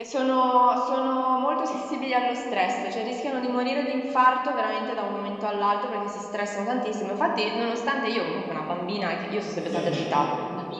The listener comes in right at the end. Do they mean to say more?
No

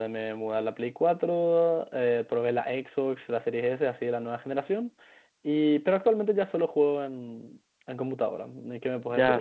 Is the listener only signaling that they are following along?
No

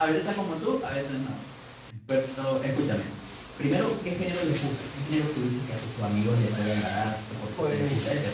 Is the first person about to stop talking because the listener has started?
No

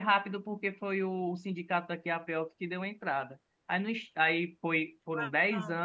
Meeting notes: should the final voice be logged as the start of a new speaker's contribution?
No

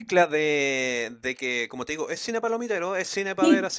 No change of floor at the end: Yes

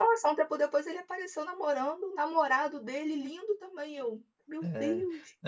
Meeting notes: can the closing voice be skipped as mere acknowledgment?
No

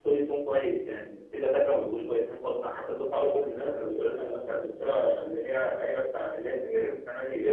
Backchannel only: Yes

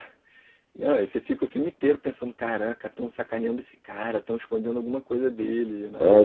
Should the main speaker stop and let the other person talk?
Yes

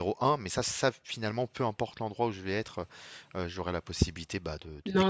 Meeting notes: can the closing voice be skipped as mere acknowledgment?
No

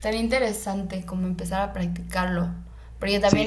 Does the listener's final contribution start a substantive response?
No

